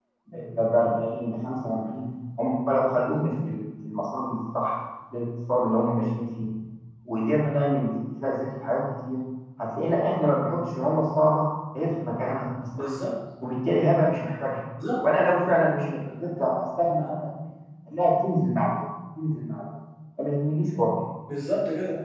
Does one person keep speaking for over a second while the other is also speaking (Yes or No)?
No